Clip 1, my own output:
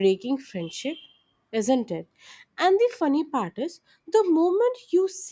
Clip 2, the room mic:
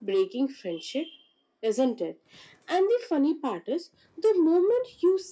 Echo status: present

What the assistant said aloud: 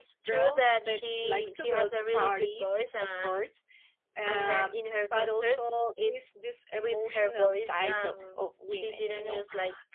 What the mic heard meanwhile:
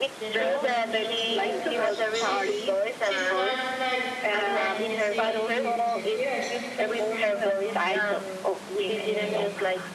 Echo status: present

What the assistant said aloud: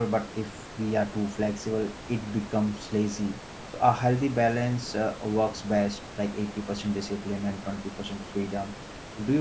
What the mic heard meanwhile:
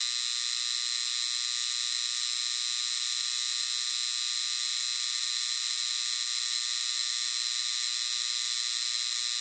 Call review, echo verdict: none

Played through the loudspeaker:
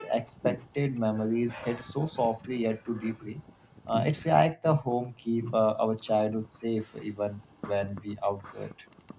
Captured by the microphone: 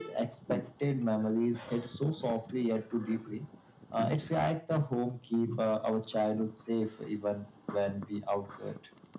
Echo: present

